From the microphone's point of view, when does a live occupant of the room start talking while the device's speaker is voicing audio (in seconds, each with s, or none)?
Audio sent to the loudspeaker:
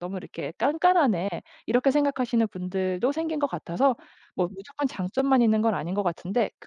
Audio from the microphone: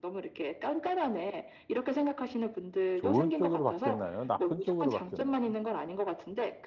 2.9 s